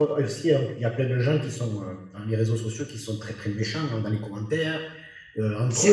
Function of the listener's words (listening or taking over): listening